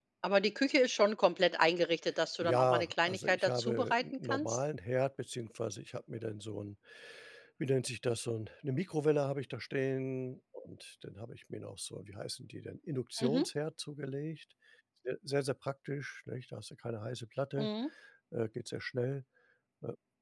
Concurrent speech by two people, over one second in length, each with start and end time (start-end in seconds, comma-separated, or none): 2.4-4.6